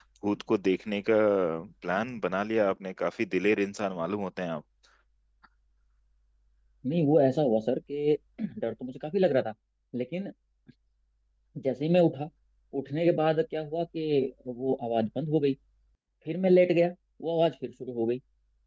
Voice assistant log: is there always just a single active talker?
Yes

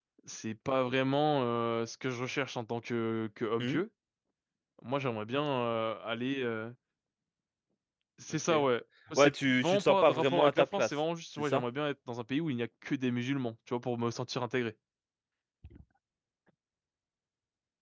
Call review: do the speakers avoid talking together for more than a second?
No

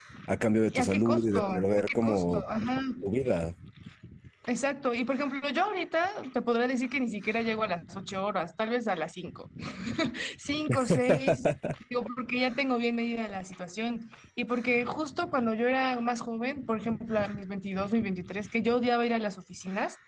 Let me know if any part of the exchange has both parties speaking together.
Yes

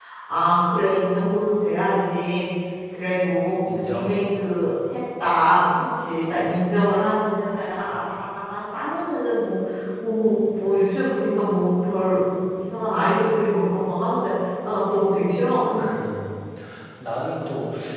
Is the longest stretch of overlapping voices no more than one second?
Yes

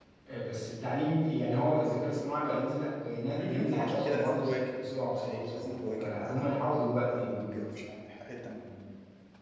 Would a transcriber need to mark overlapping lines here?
Yes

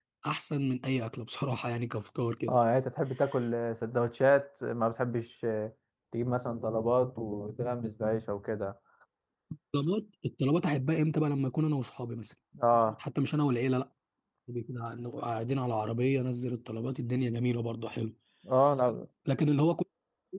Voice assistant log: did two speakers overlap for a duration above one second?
No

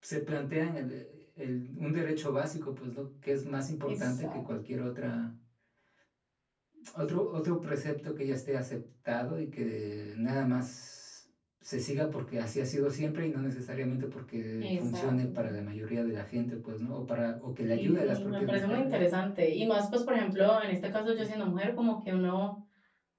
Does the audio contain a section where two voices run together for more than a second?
Yes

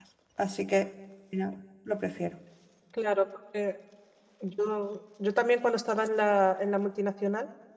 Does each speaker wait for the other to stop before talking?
Yes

